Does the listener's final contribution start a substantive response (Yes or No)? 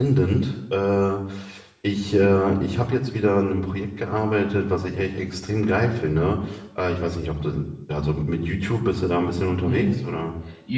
Yes